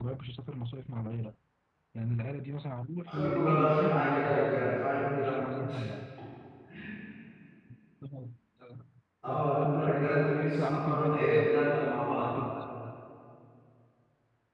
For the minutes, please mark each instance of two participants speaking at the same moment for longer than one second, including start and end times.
3.0-5.7, 9.3-11.6

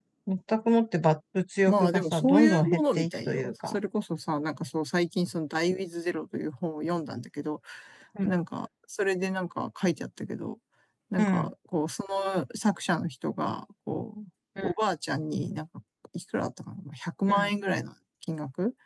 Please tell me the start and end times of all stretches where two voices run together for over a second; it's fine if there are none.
1.7-3.8

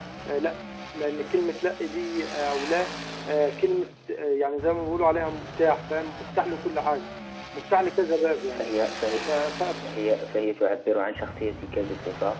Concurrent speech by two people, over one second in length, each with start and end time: none

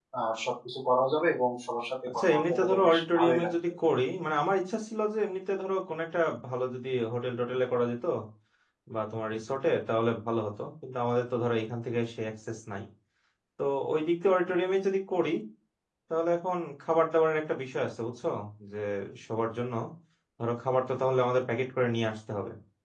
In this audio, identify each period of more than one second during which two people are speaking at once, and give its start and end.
2.1-3.5

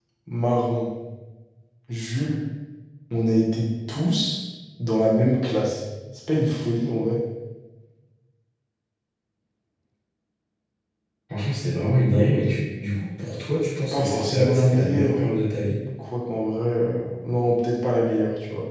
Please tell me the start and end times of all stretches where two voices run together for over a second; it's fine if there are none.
13.9-15.2

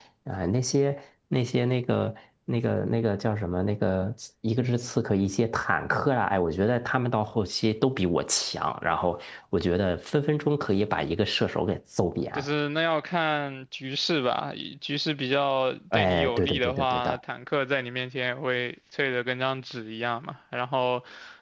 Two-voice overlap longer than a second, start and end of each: 15.9-17.2

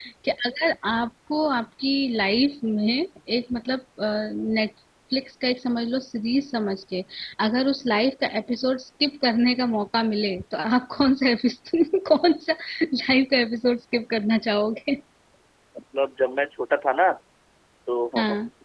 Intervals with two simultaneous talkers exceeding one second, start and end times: none

